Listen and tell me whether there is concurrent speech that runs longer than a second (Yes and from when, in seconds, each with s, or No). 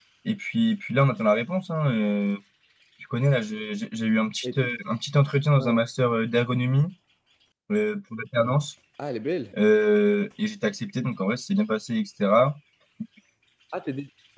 No